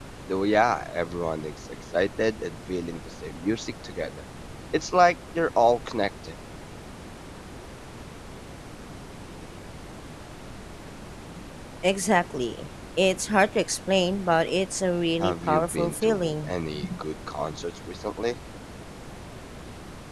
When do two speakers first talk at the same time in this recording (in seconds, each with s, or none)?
15.2 s